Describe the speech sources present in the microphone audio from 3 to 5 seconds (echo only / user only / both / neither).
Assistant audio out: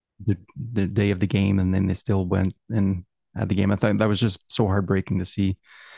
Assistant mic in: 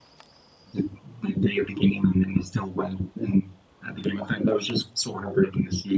echo only